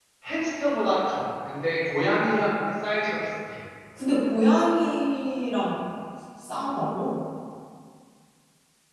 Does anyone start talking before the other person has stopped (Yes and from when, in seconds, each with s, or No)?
No